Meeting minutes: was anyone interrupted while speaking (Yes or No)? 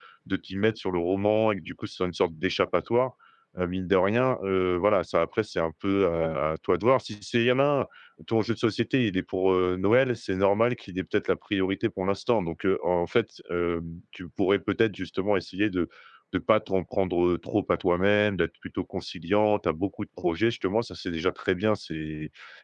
No